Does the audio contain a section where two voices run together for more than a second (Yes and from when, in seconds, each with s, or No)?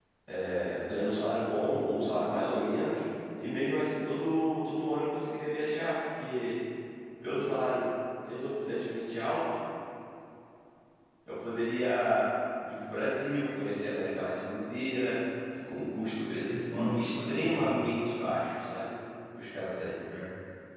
Yes, from 16.5 s